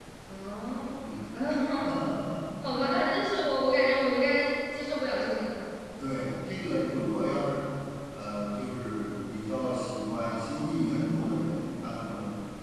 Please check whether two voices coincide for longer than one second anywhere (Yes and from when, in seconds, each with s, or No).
No